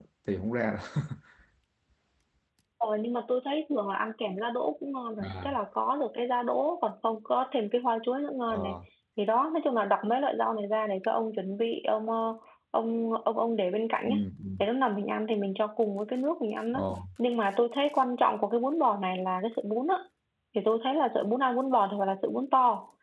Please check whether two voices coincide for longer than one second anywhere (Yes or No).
No